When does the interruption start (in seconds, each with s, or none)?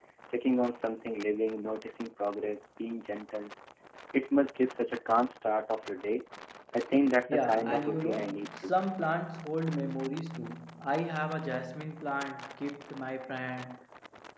7.3 s